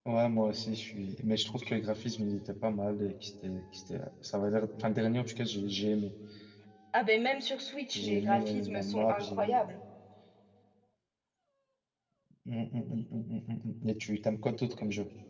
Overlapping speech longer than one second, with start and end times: 8.0-9.7

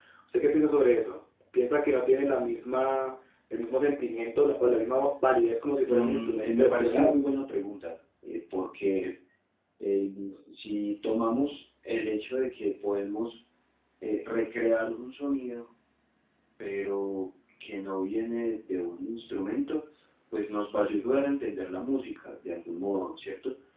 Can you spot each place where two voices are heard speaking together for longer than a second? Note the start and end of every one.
5.9-7.2

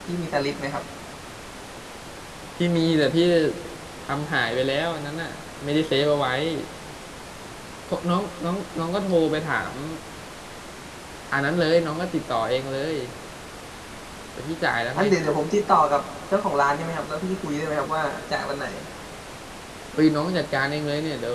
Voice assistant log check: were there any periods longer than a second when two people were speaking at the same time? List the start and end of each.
none

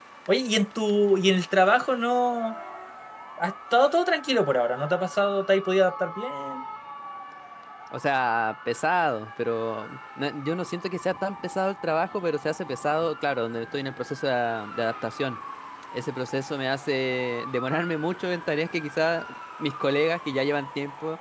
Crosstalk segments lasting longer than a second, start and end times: none

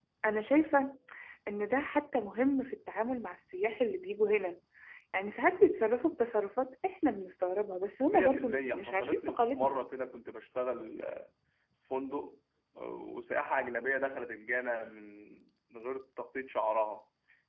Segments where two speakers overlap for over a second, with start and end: 8.0-9.8

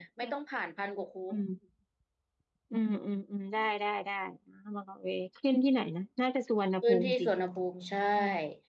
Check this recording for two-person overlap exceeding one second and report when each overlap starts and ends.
none

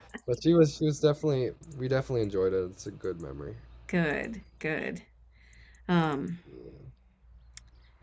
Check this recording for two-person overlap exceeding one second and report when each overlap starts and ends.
none

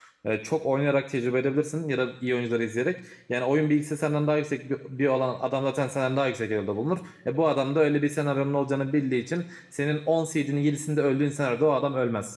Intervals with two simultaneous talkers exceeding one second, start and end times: none

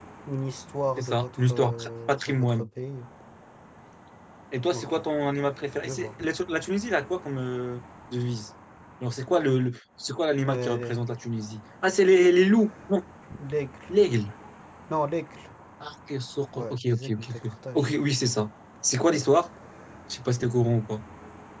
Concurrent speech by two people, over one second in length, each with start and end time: 1.0-2.7, 16.6-17.9

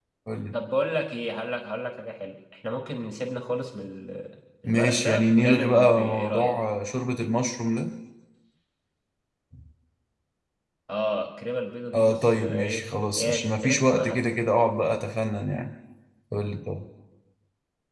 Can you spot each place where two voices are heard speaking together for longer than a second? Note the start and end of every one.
4.6-6.5, 11.9-14.2

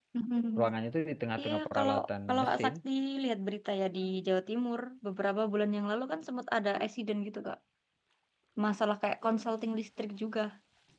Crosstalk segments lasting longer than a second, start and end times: 1.4-2.7

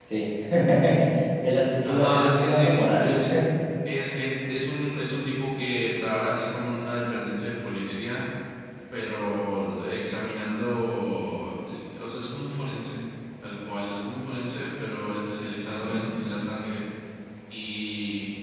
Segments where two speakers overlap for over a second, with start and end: 1.8-3.1

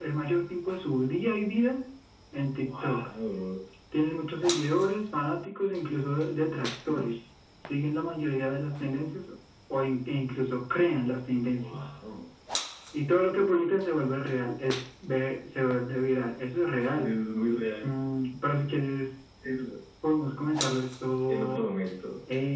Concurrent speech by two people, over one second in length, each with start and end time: none

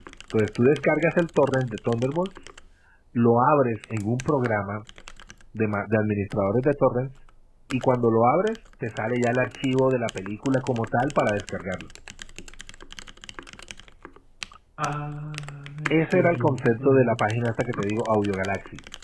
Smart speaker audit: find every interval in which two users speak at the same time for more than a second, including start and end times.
15.9-17.2

